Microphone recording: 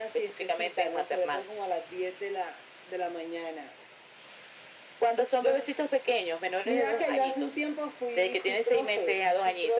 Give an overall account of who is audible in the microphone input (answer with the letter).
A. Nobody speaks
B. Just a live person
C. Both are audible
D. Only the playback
D